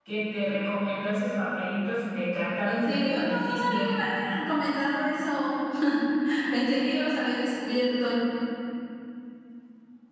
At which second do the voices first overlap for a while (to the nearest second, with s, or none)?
3 s